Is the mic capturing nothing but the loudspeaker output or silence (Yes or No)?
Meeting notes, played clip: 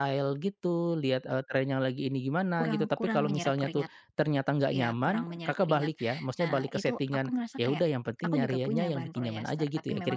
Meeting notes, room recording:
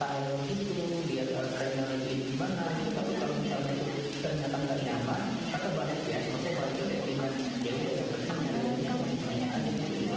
No